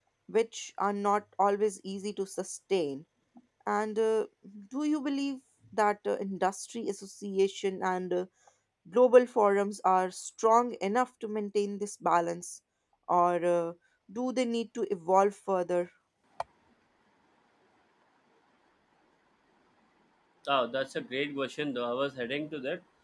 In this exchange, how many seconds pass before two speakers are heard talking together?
none

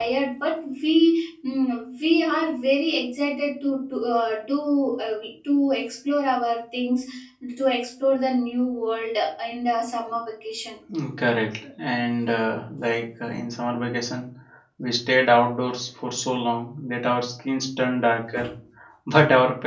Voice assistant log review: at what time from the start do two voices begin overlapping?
none

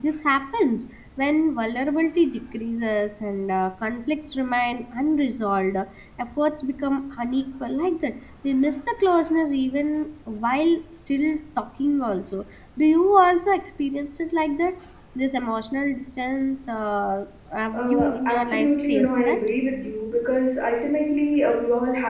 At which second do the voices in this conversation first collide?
17.7 s

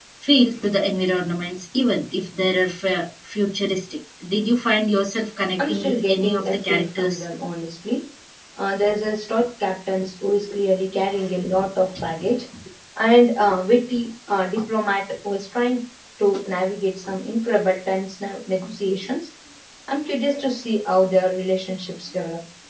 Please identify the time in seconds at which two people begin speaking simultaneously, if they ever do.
5.6 s

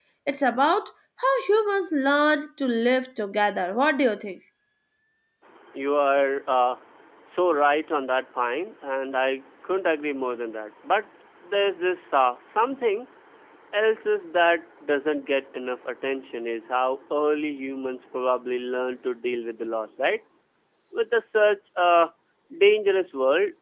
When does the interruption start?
none

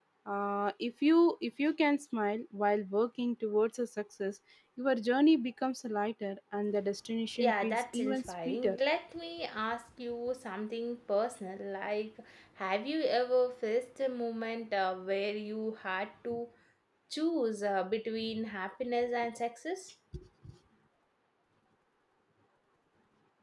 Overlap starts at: 7.4 s

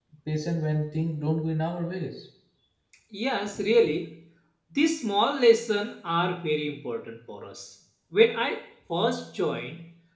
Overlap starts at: none

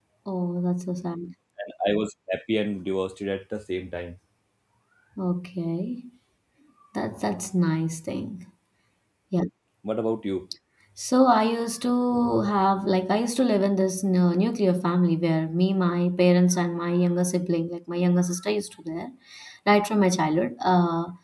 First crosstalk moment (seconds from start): none

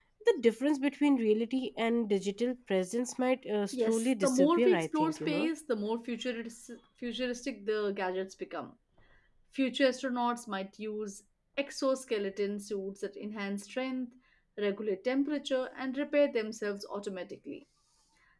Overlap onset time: 3.7 s

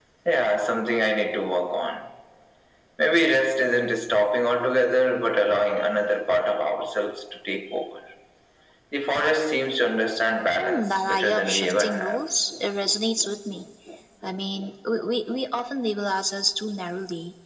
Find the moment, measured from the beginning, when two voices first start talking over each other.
10.5 s

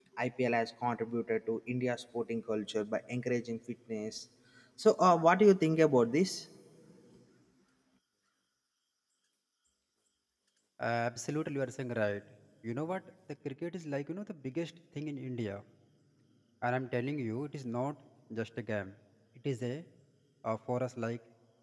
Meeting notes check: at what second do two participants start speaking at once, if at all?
none

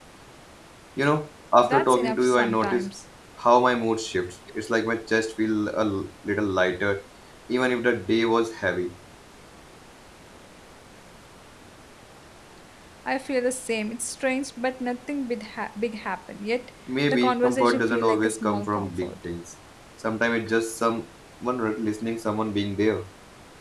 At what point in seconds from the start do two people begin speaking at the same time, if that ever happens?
1.6 s

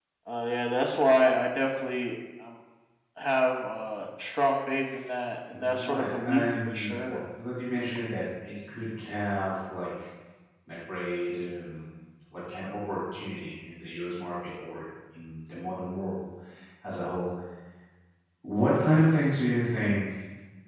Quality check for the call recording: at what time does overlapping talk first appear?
5.5 s

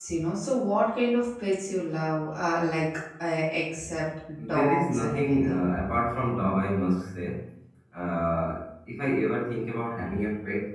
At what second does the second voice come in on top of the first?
4.4 s

